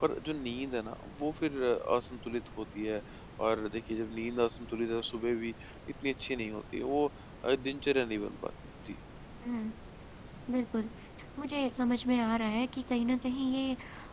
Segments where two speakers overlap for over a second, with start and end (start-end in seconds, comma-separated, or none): none